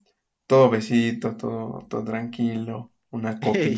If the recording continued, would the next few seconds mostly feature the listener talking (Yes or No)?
No